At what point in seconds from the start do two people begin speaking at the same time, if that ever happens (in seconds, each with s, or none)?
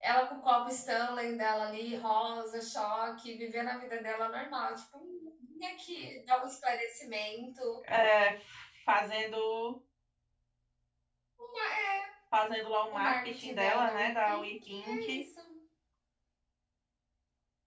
12.9 s